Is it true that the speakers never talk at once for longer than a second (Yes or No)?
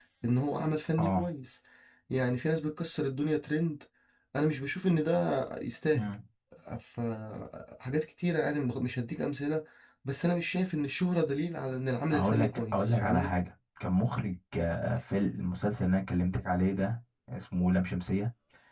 No